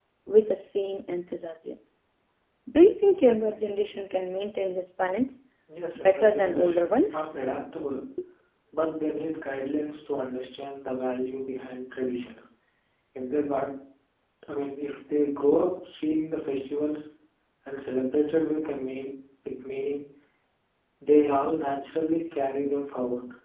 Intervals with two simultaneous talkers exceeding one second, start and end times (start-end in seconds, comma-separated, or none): 5.9-7.4